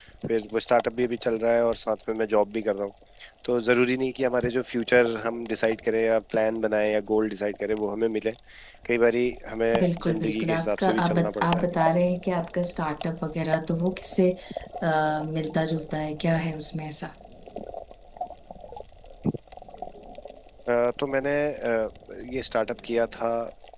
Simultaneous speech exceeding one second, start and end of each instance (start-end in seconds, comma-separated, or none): 9.8-11.7